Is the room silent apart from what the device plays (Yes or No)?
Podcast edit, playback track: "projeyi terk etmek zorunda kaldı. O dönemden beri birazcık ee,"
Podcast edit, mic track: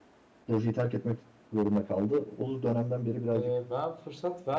No